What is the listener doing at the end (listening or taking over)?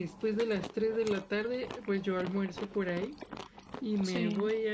listening